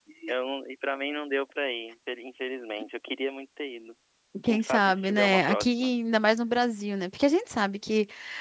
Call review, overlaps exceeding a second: present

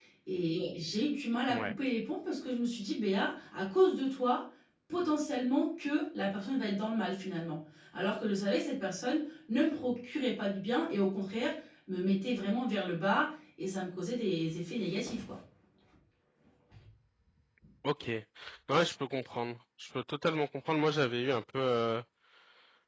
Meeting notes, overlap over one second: none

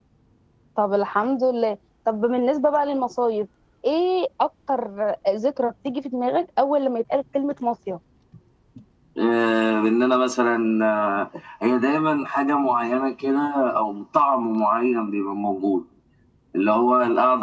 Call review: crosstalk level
none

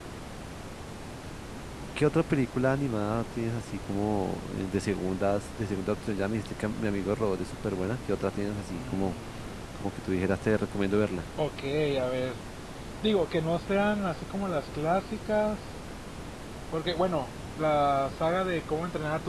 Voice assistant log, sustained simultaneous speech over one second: none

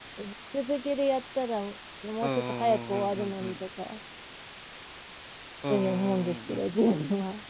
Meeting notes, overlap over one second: present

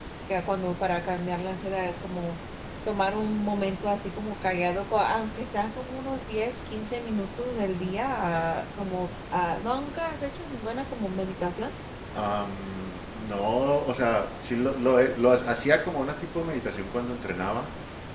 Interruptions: none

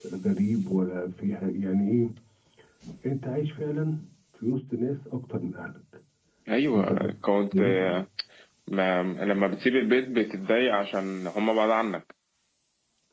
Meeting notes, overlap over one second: none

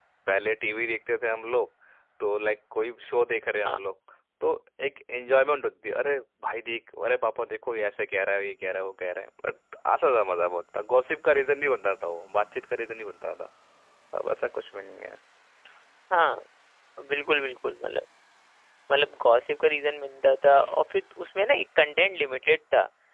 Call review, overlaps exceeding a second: none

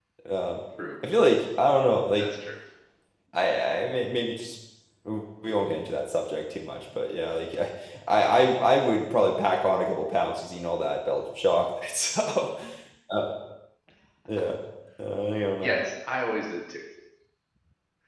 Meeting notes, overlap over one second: none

